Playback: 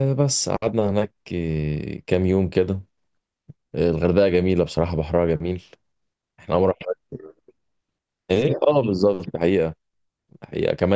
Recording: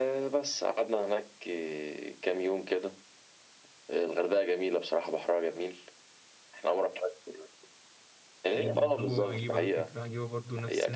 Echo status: present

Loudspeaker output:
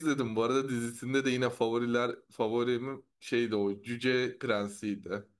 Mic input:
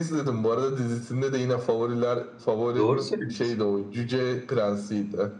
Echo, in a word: present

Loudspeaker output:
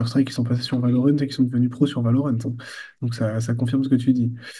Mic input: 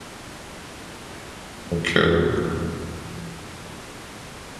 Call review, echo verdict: none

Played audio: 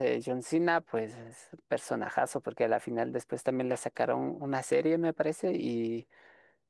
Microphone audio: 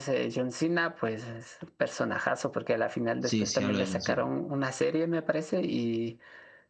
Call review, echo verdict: present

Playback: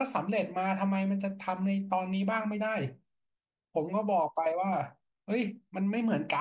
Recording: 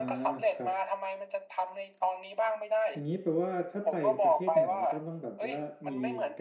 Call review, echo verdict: present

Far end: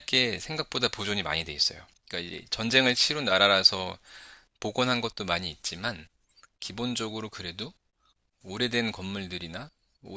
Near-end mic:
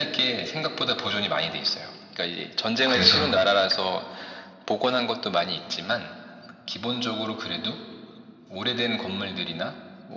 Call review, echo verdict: present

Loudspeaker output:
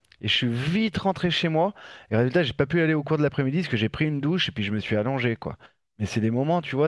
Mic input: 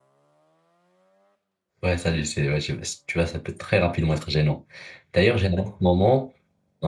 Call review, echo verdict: none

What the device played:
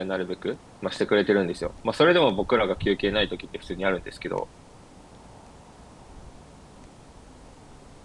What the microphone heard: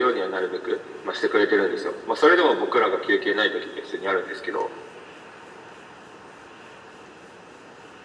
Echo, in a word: present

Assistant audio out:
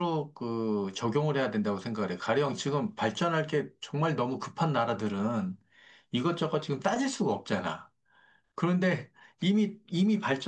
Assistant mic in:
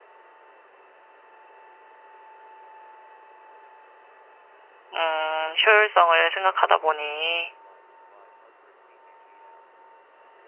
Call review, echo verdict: none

